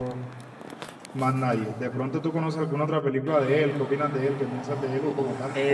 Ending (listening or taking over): taking over